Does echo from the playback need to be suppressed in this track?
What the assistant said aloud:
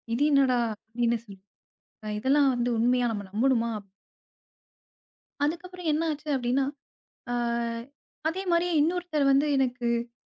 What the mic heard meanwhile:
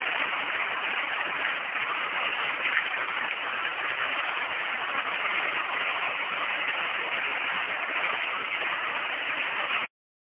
No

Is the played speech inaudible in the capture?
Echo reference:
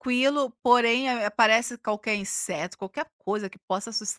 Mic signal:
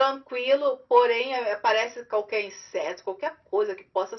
No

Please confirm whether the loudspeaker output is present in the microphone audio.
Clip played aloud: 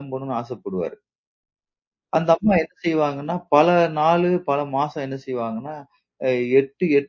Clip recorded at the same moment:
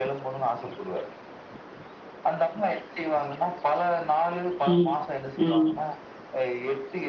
Yes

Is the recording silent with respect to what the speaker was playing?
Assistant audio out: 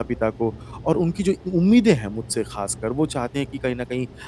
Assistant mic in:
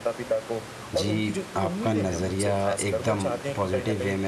No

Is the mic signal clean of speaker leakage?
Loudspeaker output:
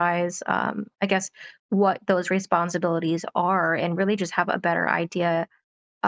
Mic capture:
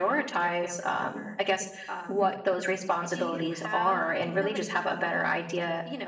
No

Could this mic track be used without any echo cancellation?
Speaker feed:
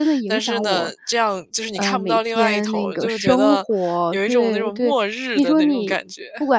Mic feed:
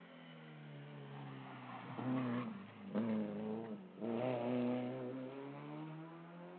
Yes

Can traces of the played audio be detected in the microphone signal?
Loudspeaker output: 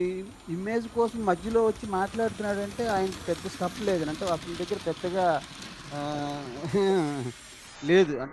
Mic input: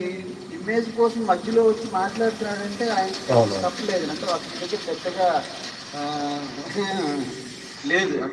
Yes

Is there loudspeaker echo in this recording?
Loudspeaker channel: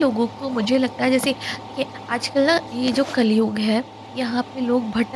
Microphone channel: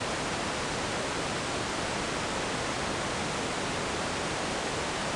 No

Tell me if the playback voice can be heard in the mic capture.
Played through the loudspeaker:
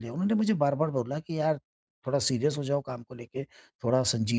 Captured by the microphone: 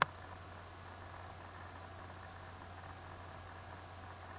No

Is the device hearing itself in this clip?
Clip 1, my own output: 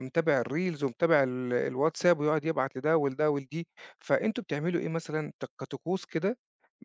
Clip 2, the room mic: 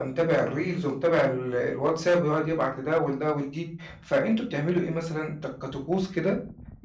Yes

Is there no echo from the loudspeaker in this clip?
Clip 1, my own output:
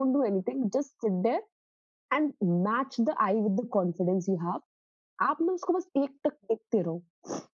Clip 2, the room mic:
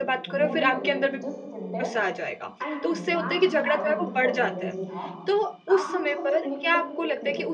No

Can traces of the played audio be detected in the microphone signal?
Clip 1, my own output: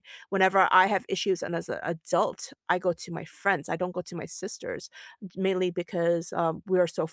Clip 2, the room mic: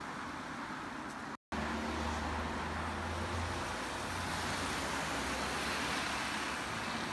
No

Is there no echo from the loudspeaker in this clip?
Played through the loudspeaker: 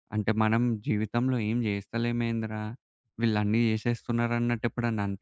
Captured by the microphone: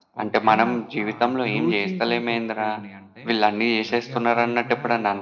No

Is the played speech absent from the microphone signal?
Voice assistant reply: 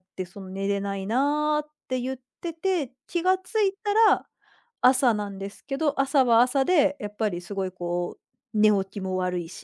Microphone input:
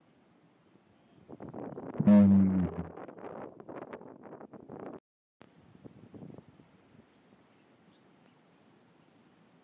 Yes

